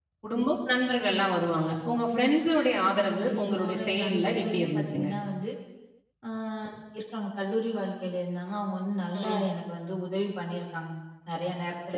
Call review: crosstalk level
present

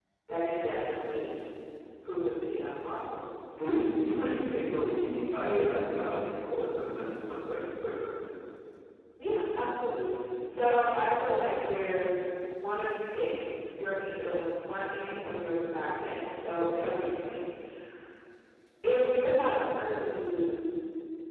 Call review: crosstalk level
none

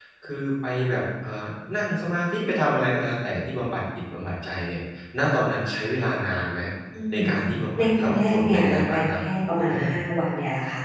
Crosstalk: present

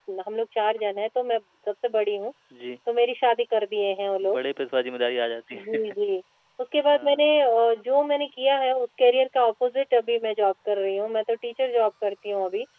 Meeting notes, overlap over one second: none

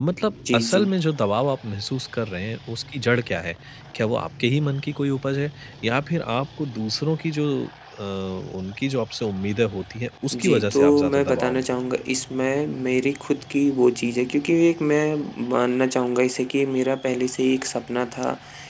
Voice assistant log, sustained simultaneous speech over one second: present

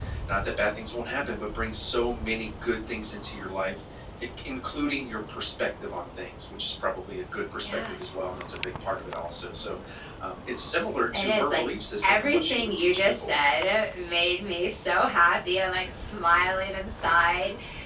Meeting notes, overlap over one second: present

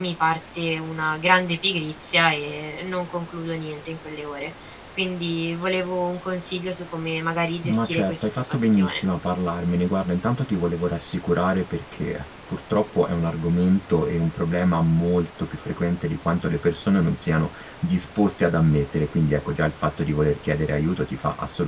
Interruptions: present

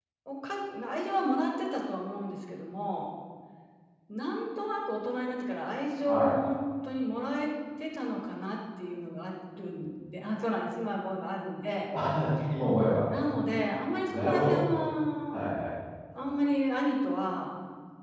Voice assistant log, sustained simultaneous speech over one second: none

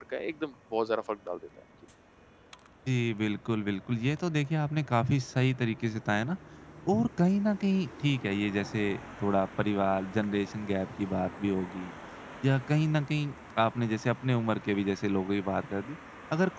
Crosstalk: none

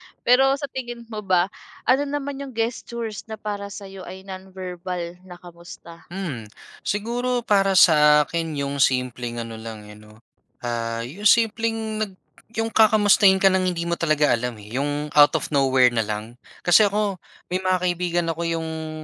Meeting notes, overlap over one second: none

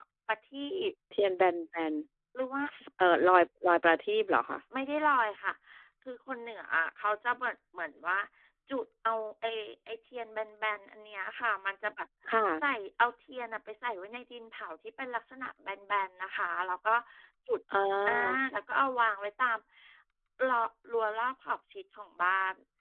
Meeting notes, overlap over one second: none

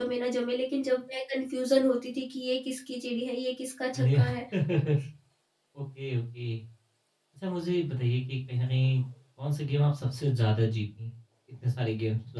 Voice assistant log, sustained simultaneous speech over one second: none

